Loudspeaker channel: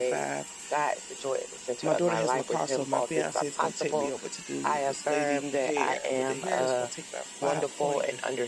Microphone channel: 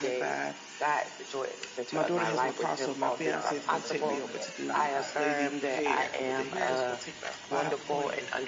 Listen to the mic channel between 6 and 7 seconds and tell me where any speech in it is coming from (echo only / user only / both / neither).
echo only